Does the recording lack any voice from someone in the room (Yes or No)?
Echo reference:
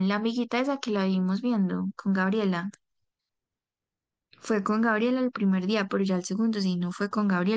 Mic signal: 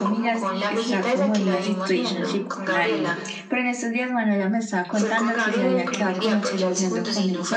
No